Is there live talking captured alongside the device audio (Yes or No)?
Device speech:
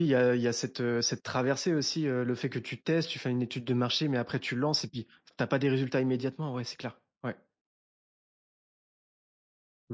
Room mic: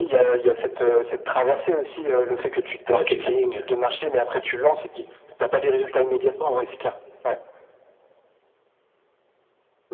Yes